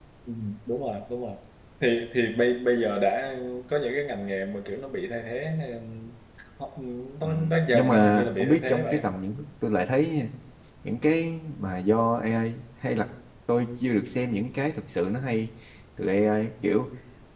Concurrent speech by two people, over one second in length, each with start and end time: 7.7-9.1

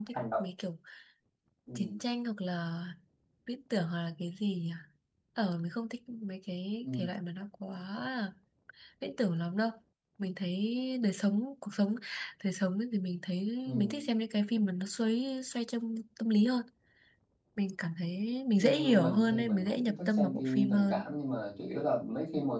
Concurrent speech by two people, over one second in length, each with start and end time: 18.6-21.0

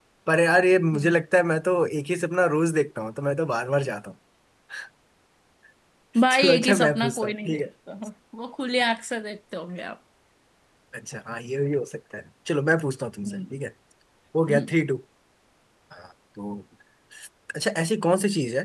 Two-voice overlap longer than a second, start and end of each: 6.3-7.7

